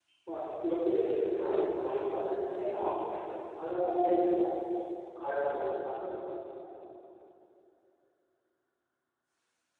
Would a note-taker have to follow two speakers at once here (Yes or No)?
Yes